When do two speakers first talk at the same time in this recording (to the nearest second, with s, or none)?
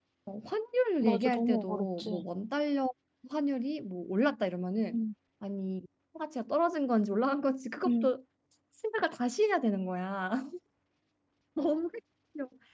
1 s